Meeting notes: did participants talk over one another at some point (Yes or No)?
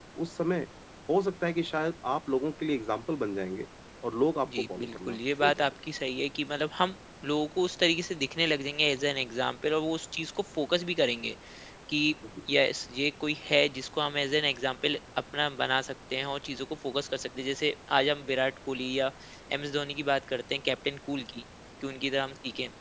Yes